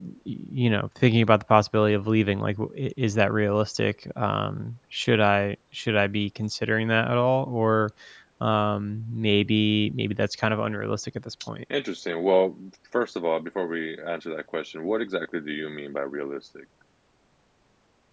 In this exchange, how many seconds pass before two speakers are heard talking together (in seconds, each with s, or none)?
none